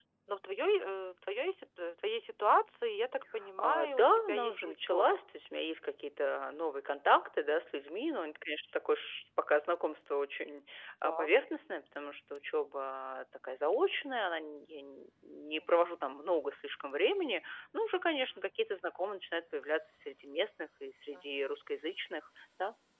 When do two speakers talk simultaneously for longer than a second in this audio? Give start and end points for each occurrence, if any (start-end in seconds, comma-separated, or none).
3.6-5.2